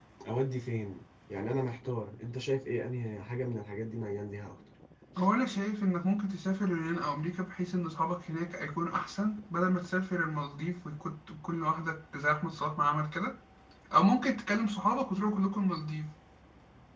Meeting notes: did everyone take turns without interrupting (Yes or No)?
Yes